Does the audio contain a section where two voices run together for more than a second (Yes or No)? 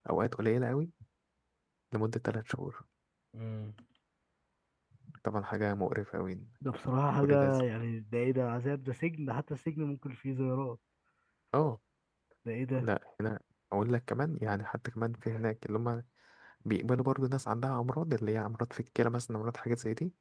No